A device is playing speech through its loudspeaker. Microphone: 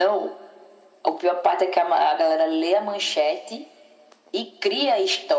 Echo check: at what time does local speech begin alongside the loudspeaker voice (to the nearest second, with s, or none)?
none